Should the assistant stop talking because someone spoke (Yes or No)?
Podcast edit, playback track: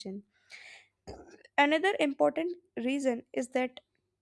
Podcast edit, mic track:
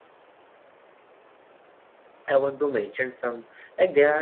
Yes